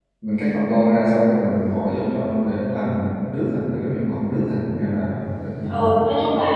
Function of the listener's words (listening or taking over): taking over